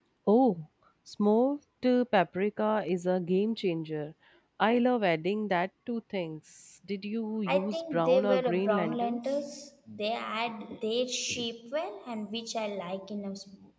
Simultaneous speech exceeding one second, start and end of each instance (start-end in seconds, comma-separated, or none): 7.5-9.2